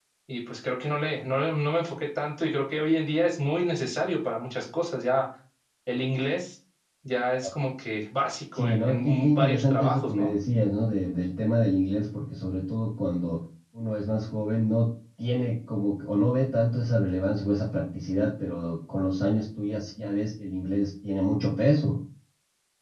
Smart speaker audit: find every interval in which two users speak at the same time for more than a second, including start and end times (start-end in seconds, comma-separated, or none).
8.6-10.3